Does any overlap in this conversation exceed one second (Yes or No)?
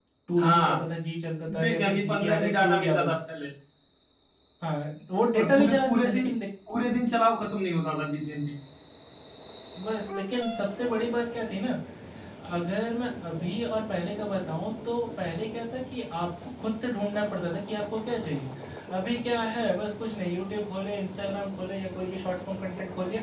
Yes